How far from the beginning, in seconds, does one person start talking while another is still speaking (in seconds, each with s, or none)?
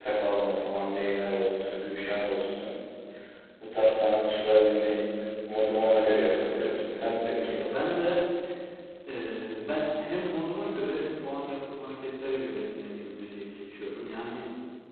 6.0 s